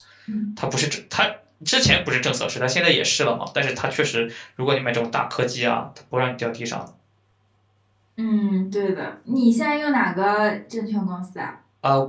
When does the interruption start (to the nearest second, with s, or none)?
none